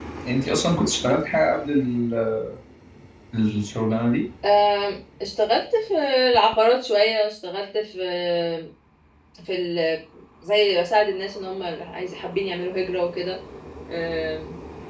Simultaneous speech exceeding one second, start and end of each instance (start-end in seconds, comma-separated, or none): none